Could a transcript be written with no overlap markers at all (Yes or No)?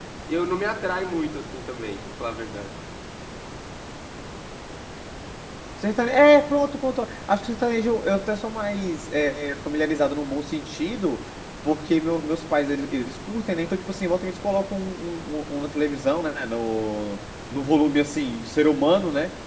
Yes